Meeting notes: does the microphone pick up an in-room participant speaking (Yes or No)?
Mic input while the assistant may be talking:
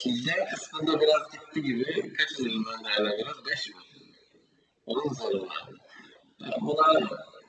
No